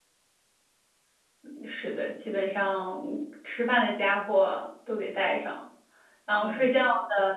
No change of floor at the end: Yes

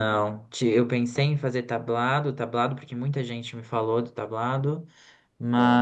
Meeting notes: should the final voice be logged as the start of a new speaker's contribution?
No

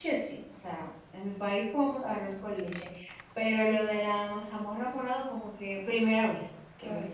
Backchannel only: No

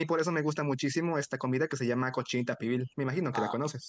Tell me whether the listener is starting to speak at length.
Yes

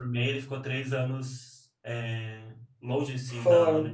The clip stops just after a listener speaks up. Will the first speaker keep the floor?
Yes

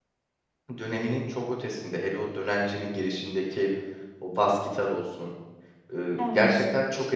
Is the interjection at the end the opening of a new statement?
No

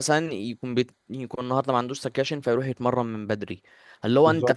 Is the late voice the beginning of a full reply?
No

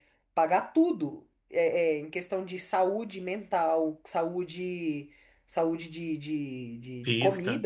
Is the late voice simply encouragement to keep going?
Yes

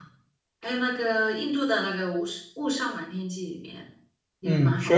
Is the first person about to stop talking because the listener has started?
Yes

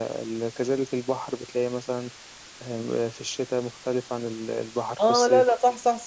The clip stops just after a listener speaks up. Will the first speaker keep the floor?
No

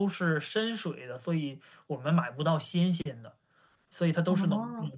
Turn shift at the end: No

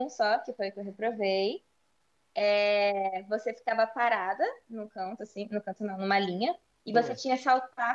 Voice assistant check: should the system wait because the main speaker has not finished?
Yes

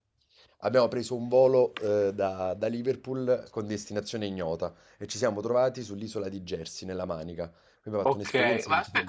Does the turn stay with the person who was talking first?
No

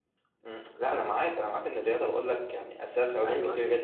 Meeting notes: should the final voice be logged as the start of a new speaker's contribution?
No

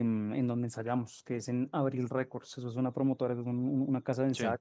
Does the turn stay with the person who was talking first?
Yes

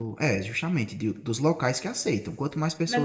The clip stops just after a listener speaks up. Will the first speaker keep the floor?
No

